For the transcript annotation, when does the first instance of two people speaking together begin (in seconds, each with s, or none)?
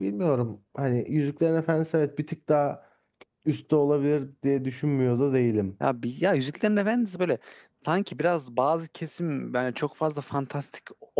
none